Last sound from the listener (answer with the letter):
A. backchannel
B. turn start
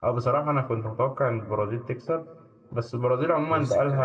A